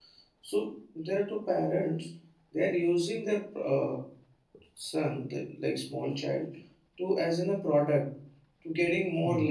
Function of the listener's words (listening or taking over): listening